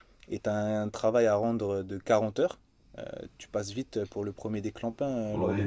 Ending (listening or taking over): taking over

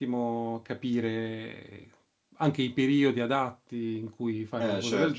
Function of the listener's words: taking over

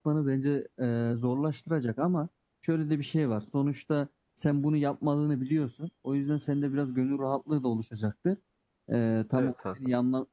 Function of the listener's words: listening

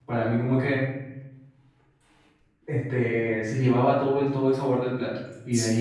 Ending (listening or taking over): listening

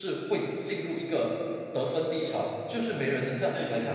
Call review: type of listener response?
taking over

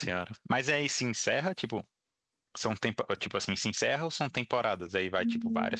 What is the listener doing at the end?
taking over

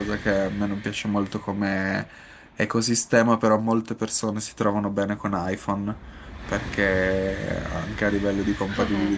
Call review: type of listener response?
listening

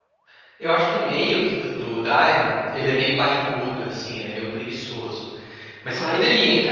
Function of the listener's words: listening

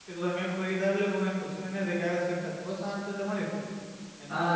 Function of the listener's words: taking over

